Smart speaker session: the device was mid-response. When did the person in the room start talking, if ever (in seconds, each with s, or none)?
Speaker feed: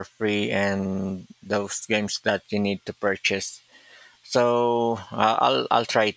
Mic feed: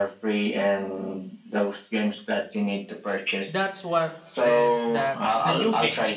3.5 s